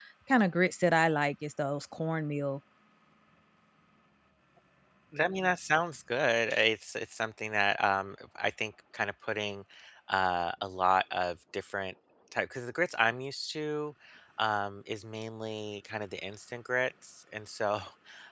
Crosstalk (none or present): none